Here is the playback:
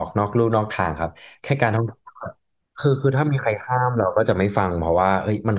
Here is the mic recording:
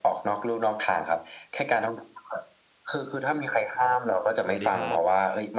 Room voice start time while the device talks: 3.7 s

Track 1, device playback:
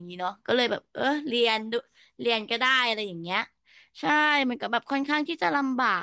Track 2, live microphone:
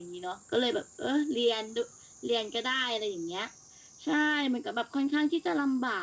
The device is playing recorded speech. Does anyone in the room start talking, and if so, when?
none

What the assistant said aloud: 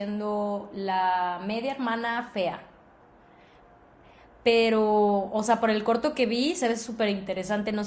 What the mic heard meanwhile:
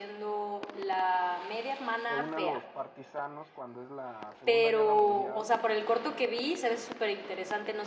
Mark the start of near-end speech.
2.1 s

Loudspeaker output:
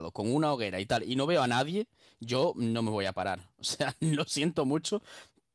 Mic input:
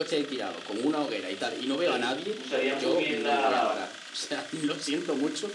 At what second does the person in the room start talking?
1.8 s

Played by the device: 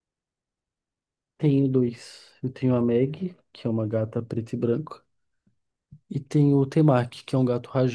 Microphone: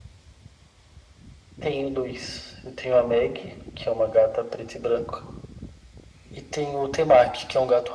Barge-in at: none

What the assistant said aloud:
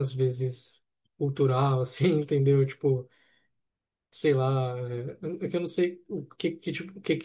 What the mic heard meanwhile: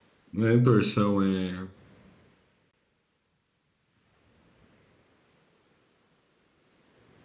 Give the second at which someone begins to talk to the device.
0.3 s

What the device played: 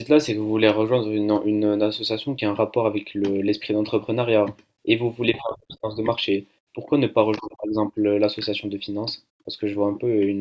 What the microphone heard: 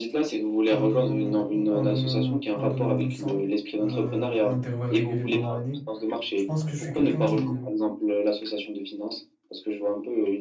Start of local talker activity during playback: 0.7 s

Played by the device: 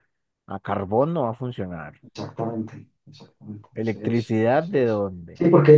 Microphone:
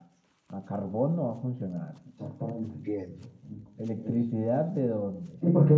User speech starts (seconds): 2.6 s

